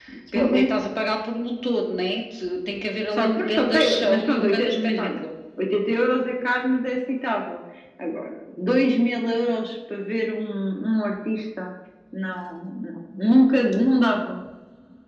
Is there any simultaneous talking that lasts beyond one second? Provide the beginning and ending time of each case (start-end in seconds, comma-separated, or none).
3.1-5.2